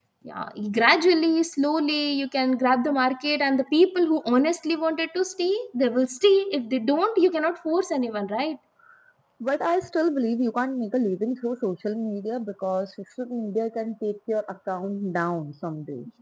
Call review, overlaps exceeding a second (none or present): none